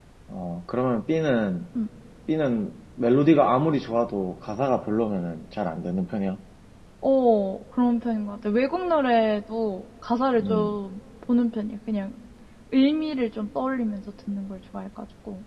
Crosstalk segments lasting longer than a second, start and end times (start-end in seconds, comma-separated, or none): none